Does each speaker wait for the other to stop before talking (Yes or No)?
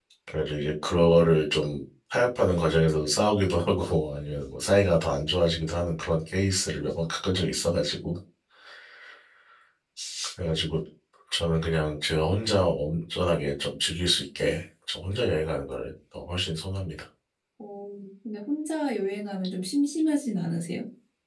Yes